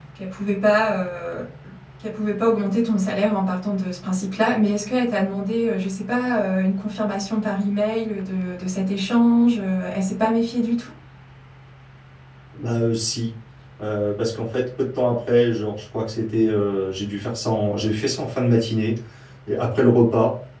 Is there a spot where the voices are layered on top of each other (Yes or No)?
No